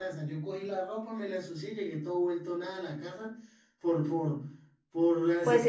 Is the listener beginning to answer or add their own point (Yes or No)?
Yes